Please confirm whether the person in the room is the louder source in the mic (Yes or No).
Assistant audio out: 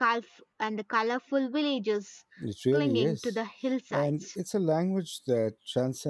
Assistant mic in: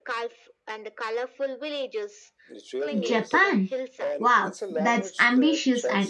Yes